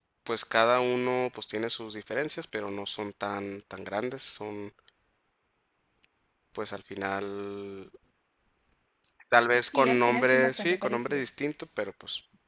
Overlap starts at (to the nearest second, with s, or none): 10 s